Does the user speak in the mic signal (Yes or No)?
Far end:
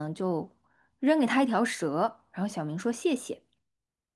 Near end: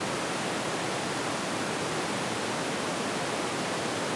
No